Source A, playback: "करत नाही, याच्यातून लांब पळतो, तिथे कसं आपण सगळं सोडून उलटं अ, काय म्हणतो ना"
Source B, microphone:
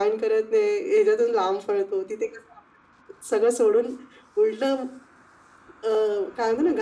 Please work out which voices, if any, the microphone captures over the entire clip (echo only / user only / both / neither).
echo only